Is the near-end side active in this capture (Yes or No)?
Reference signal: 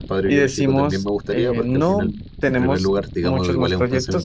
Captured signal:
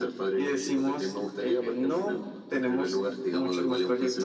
No